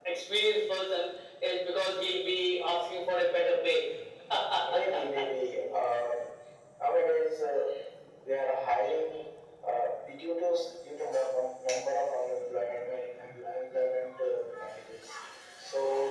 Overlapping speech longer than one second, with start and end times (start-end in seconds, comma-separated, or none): none